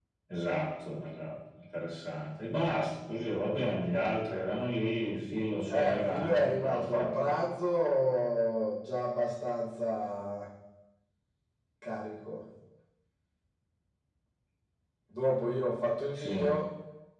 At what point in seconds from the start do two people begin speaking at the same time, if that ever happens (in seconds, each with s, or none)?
5.7 s